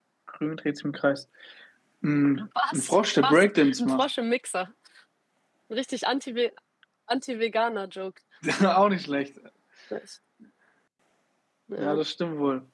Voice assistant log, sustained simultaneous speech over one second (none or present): present